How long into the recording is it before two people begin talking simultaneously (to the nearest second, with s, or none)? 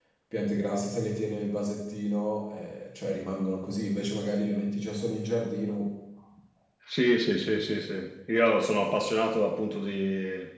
none